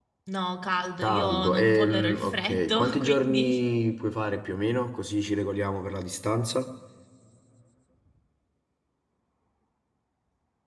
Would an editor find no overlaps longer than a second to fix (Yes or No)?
No